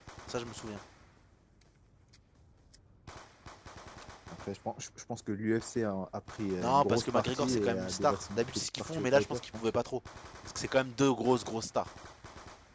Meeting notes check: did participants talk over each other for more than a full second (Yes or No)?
Yes